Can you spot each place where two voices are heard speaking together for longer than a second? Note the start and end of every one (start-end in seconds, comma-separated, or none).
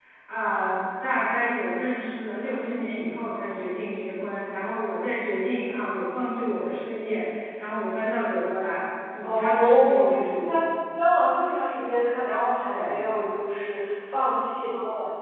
9.2-10.7